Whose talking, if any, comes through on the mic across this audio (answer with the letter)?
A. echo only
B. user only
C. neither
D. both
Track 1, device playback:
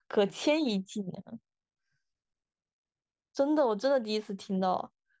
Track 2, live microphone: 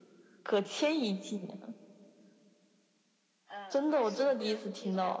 D